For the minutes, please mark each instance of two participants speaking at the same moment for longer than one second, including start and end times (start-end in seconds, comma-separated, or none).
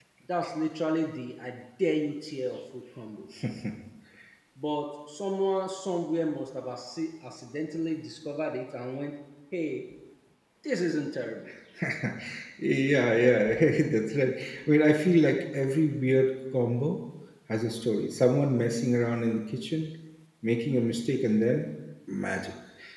none